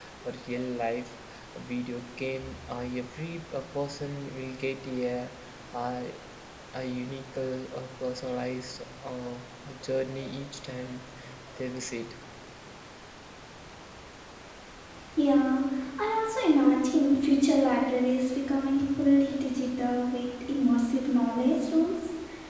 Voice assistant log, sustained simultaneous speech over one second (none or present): none